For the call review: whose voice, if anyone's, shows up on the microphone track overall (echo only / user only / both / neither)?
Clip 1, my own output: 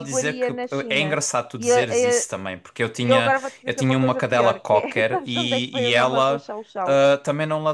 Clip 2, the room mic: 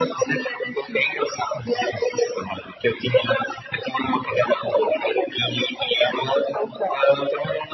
echo only